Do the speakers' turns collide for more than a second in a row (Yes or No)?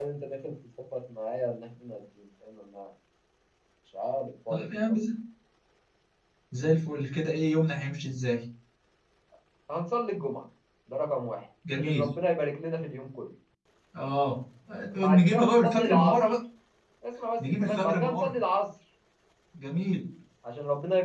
Yes